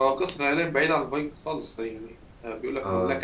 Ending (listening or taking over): taking over